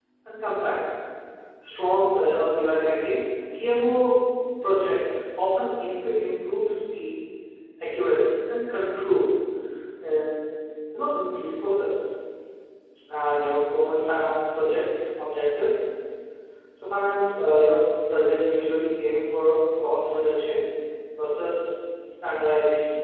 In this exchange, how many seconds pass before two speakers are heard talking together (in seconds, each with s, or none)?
none